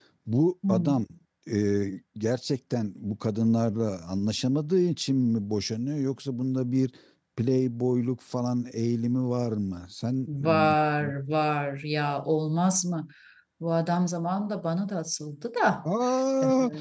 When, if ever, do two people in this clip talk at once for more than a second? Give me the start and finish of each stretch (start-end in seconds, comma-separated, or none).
none